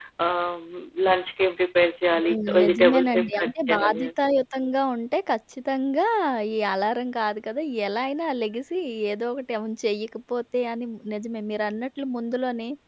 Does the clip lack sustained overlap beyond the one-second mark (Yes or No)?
No